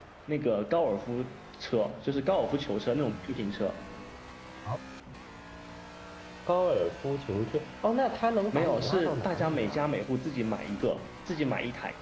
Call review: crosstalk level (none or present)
present